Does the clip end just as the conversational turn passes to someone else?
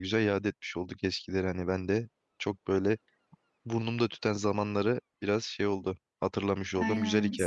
Yes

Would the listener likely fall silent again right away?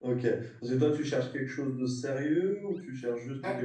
Yes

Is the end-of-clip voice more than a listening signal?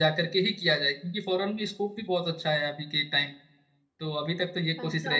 Yes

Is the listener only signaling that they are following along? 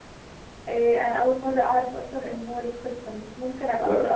No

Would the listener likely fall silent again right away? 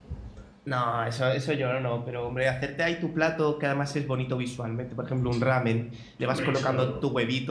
Yes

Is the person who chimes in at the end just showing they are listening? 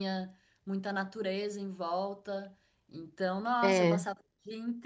Yes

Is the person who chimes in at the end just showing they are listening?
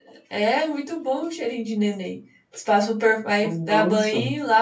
Yes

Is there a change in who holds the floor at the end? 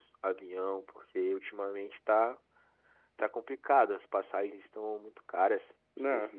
Yes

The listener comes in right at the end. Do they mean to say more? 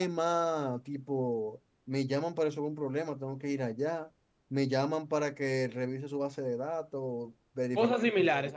Yes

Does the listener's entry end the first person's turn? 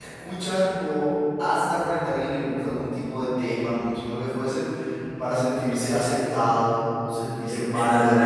Yes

